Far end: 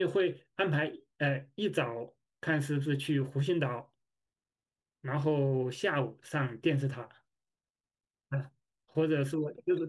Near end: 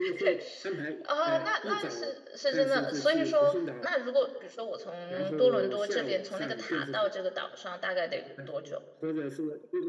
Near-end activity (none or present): present